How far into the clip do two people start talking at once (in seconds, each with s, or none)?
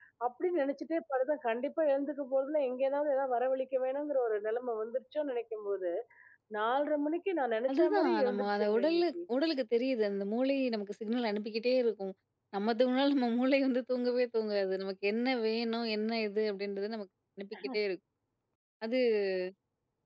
7.7 s